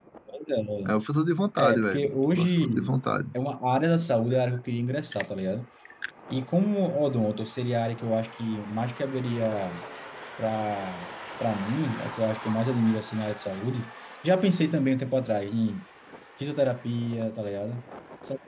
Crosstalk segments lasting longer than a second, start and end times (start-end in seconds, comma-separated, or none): 1.6-2.9